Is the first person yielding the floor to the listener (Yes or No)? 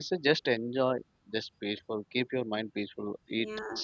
Yes